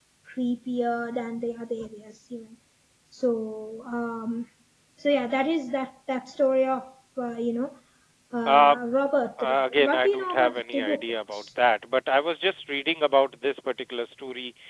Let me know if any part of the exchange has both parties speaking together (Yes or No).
Yes